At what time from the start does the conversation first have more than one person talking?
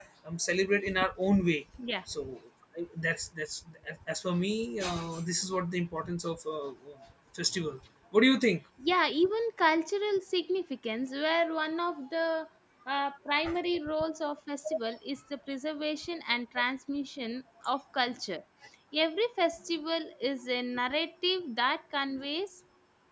none

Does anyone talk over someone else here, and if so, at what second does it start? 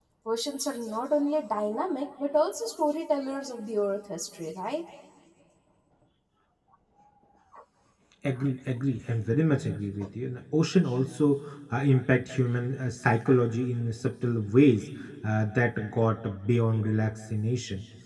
none

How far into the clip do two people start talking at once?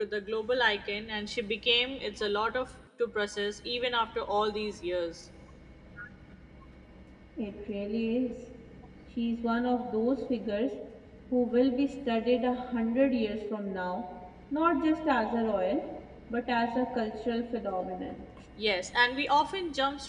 none

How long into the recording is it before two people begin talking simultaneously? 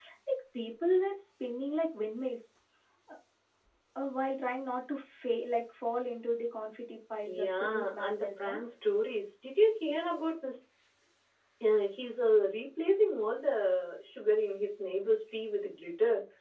7 s

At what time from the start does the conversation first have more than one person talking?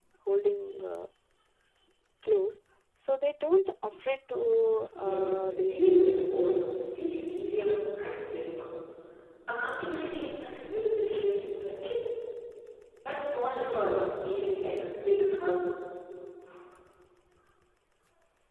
5 s

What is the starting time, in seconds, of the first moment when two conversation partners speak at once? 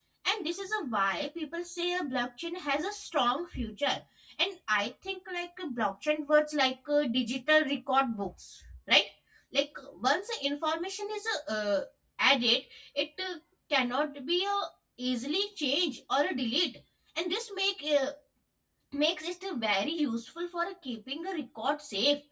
none

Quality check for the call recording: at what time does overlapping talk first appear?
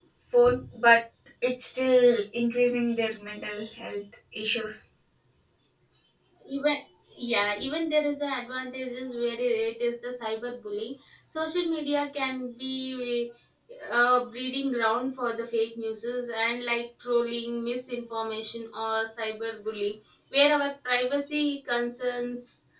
none

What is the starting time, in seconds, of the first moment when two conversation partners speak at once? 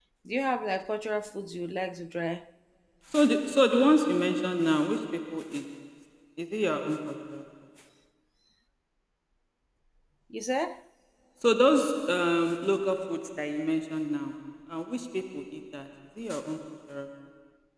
none

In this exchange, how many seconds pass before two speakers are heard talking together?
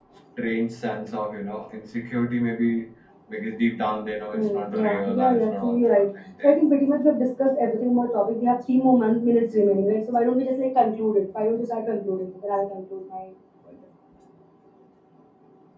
4 s

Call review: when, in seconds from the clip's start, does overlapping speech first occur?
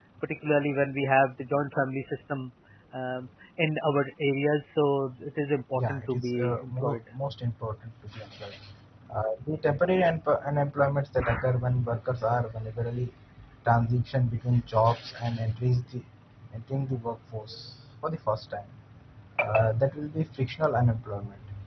6 s

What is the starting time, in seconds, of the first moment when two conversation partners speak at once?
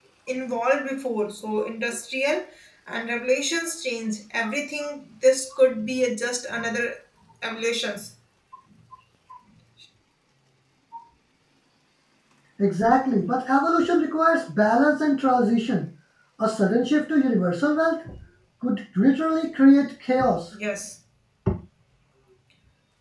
none

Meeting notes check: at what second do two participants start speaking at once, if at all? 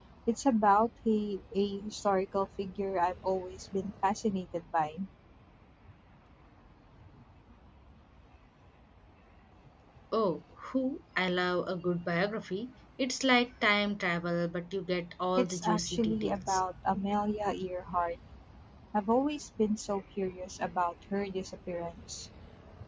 15 s

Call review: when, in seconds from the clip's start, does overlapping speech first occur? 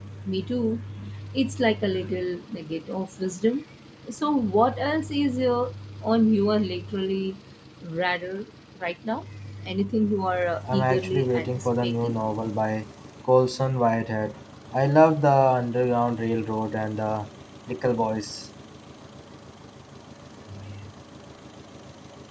11 s

